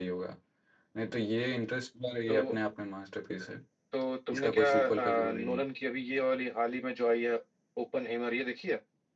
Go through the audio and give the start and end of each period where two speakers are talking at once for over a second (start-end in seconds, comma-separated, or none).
4.3-5.6